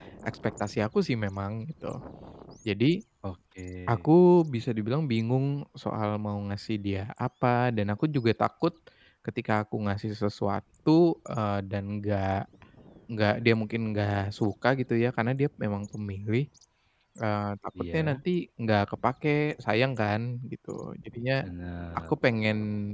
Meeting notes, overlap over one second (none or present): none